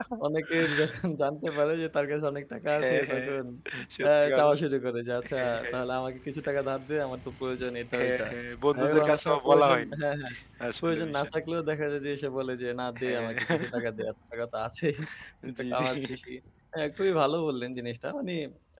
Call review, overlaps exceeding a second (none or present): present